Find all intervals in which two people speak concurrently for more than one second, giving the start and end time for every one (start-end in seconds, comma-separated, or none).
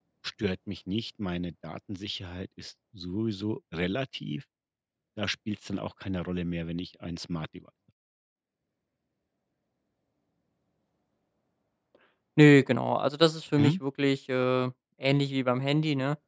none